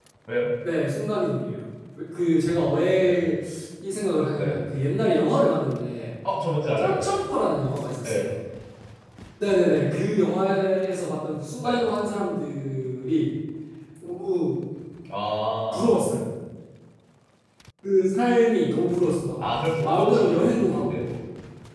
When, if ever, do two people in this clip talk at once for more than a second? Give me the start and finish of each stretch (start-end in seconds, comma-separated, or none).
19.8-21.1